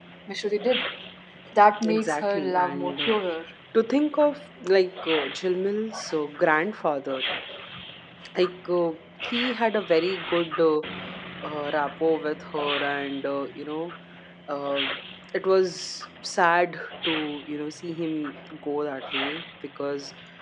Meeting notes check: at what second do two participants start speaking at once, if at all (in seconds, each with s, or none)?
1.8 s